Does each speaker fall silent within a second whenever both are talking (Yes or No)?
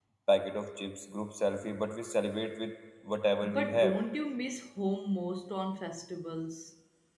Yes